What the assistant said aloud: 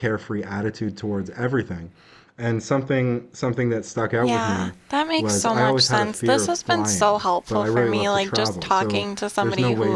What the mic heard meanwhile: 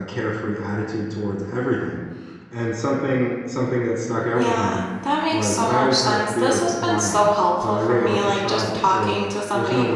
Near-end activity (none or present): none